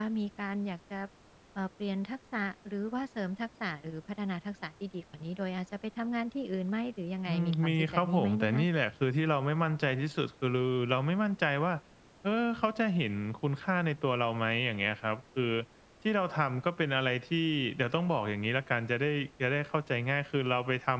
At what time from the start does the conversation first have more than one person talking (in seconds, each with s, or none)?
7.3 s